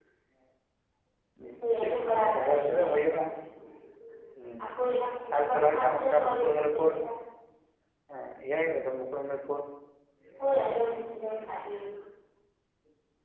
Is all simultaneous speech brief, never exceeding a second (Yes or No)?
No